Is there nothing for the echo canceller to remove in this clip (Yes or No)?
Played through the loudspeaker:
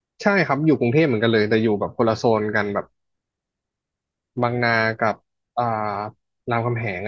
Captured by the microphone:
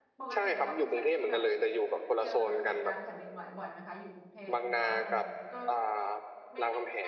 No